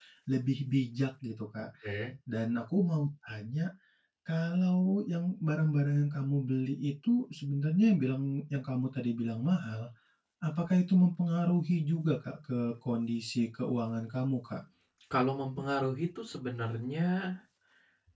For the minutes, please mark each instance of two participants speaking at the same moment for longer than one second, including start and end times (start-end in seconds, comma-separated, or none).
none